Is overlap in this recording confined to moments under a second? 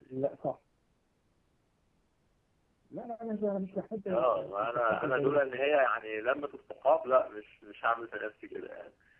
No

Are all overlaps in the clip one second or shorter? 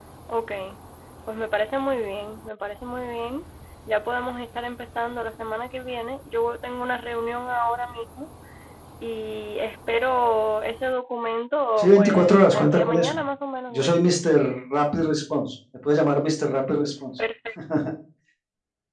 No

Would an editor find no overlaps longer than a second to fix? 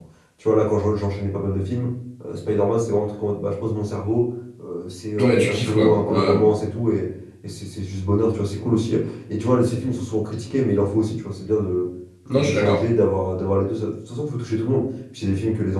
No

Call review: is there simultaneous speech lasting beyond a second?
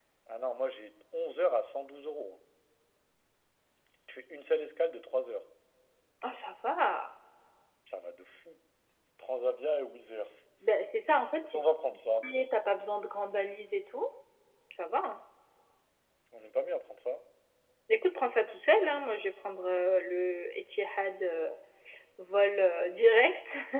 No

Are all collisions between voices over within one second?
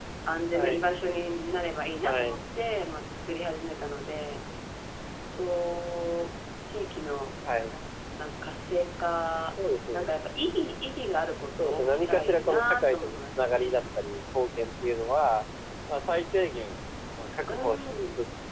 No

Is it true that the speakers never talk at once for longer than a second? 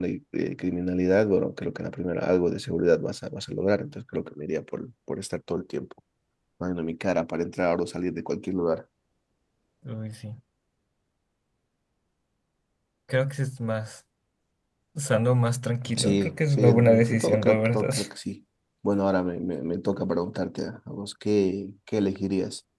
No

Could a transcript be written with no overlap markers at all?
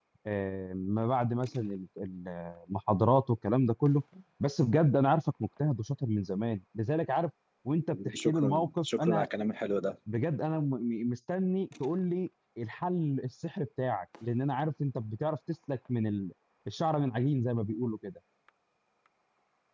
No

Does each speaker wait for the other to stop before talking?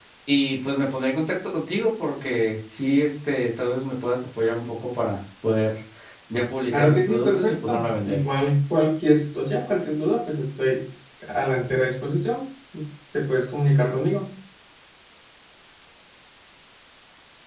No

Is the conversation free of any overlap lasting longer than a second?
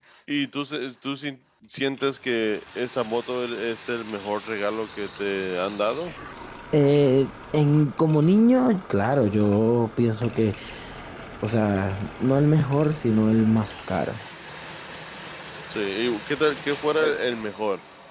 Yes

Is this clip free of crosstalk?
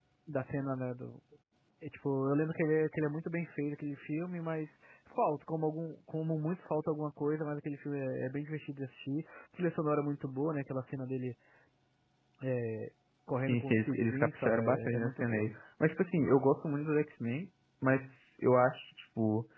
No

